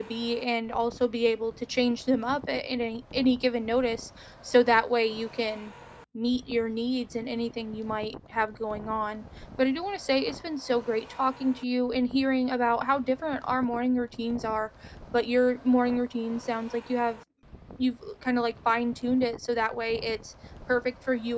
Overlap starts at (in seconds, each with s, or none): none